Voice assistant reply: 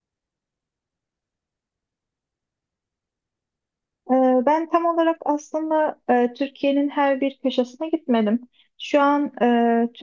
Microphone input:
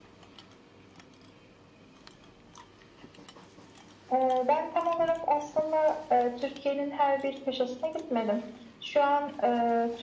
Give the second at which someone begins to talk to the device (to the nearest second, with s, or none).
none